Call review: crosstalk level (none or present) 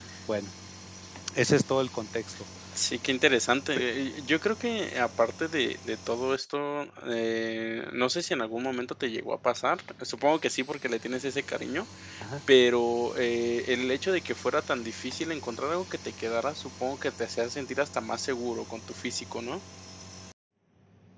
none